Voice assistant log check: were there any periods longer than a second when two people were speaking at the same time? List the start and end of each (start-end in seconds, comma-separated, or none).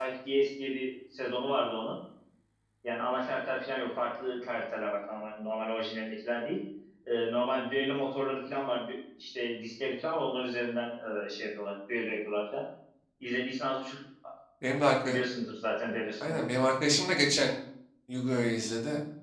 none